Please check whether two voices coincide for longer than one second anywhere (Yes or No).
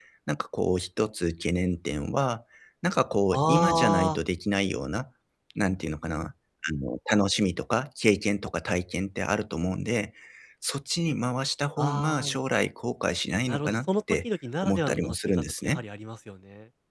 Yes